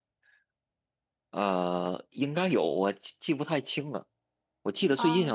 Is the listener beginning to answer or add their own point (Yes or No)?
No